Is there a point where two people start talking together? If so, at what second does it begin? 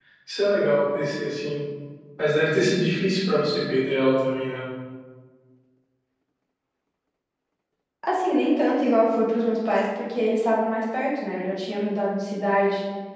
none

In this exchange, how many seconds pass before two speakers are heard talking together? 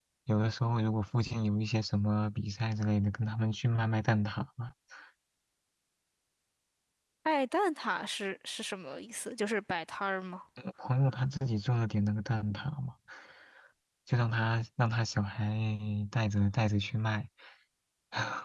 none

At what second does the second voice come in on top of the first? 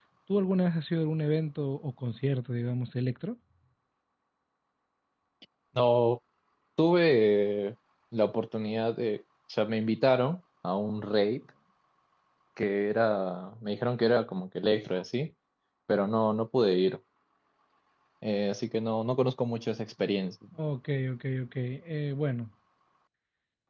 none

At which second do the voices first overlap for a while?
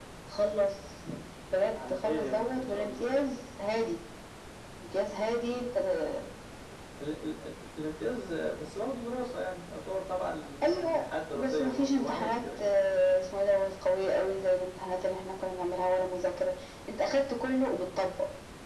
1.7 s

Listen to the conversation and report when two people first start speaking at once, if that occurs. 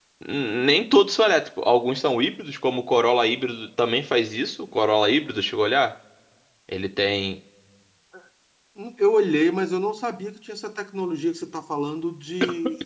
none

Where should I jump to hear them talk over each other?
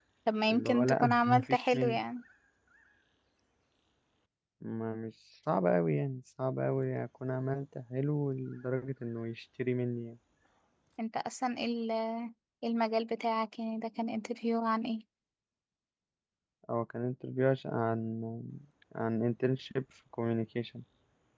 0.5 s

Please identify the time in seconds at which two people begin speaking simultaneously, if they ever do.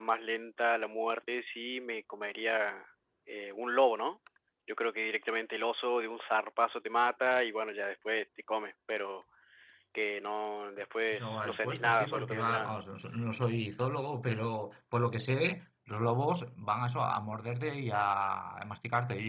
11.1 s

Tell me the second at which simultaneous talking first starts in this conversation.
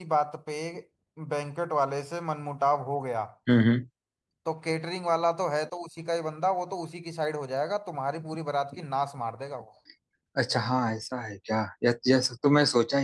none

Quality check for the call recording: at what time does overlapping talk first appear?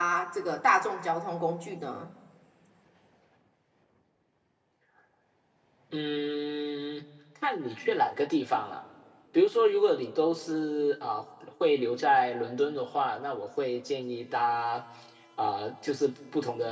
none

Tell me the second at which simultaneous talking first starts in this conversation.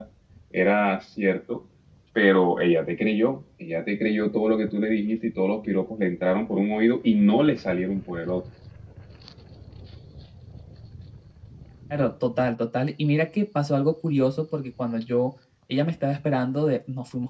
none

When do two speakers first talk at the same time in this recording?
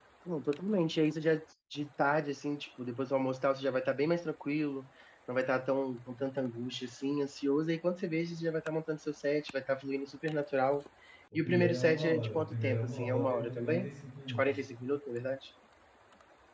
11.3 s

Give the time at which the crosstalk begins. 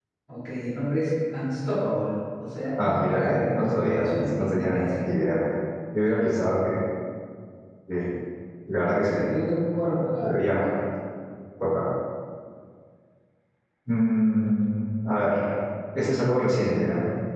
2.8 s

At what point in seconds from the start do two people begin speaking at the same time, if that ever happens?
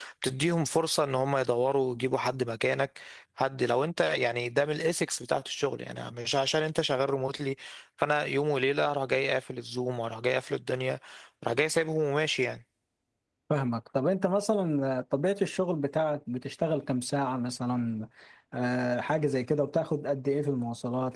none

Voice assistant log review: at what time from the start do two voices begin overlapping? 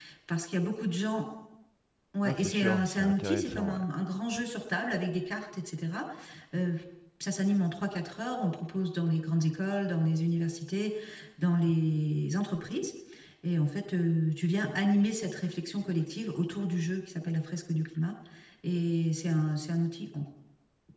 2.2 s

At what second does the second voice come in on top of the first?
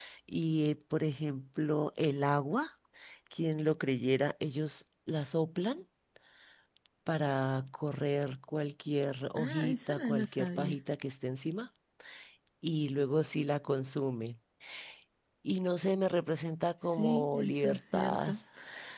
9.4 s

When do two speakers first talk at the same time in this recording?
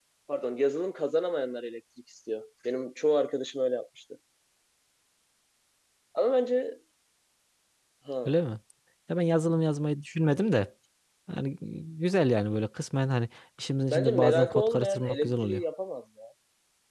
13.9 s

